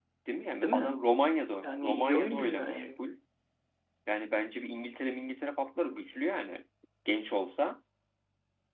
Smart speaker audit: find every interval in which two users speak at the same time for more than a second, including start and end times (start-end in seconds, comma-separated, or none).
1.6-3.0